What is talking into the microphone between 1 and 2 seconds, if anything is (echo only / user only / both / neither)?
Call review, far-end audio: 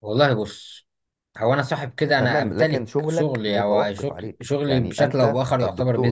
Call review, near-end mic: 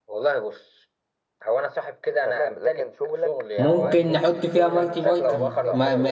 echo only